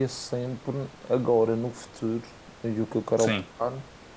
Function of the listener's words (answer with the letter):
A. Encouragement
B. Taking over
A